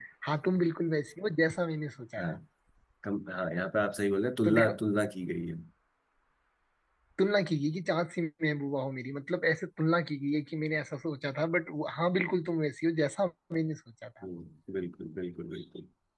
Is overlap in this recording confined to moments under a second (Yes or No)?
Yes